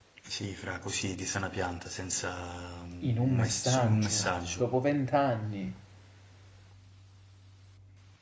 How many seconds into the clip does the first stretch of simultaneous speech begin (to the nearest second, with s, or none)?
3 s